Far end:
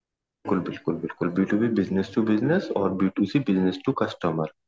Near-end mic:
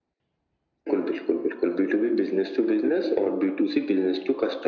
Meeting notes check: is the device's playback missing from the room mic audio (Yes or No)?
No